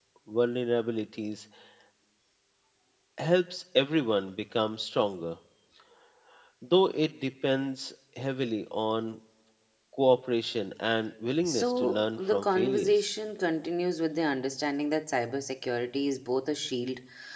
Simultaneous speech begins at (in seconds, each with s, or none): 11.4 s